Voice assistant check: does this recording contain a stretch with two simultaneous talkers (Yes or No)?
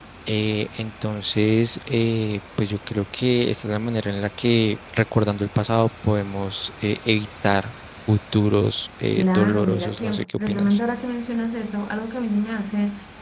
Yes